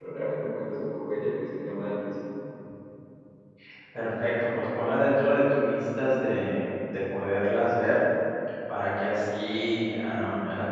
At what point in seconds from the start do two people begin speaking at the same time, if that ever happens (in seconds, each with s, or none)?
none